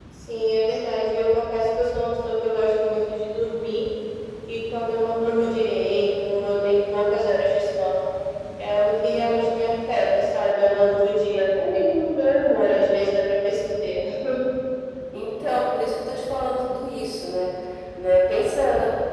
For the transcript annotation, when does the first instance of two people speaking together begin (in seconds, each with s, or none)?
none